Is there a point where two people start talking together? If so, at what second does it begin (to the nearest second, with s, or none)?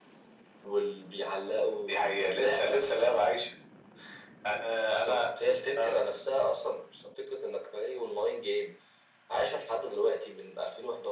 2 s